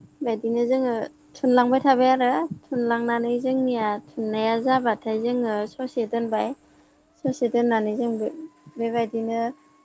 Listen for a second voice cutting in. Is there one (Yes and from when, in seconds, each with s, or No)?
No